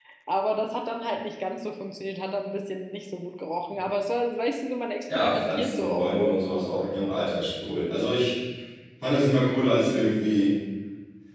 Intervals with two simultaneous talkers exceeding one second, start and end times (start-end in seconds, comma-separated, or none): 5.2-6.4